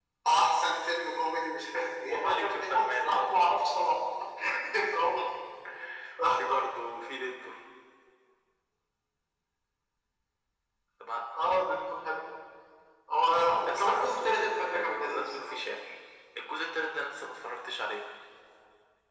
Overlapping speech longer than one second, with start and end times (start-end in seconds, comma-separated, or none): 2.1-3.3, 13.6-15.5